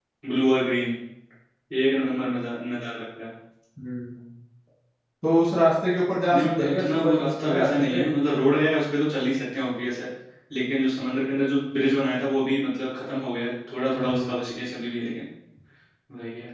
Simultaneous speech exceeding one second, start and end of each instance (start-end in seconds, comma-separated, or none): 6.3-8.0